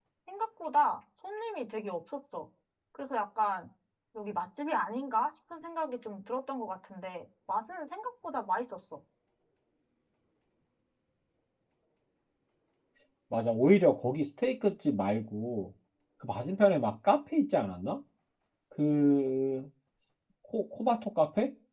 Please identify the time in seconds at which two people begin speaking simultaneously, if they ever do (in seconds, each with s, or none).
none